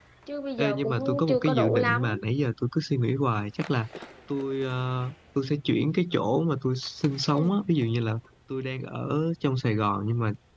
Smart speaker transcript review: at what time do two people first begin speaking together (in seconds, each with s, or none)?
0.6 s